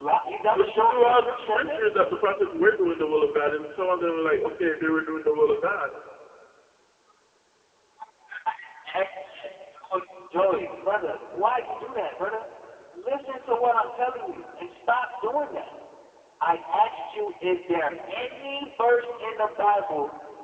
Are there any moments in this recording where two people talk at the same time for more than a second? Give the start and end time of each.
0.5-1.9

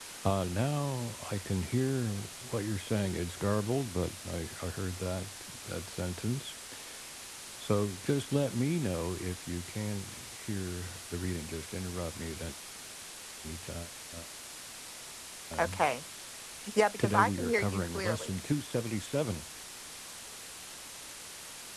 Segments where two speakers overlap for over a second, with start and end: 17.0-18.3

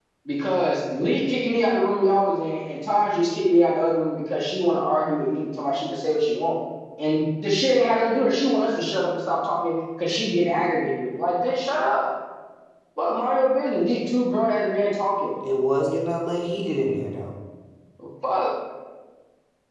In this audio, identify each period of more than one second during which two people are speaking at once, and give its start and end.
none

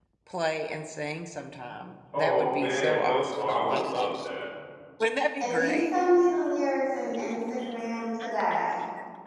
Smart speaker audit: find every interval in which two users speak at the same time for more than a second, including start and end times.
2.1-4.1

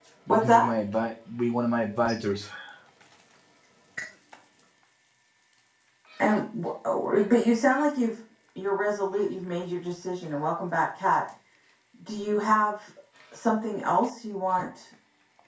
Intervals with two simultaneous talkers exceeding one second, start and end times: none

